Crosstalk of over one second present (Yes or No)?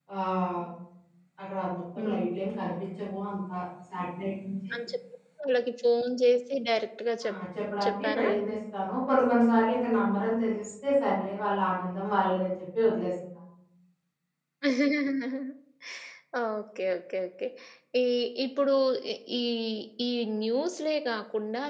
No